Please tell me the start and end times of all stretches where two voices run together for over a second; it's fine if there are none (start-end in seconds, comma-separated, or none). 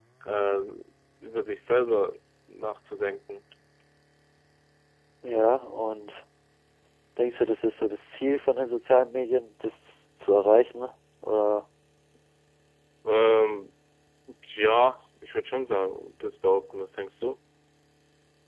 none